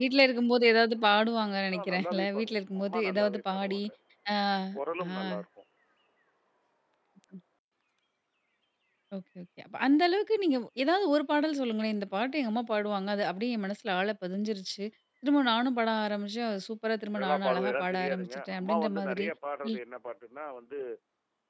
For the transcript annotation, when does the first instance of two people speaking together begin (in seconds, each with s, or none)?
1.8 s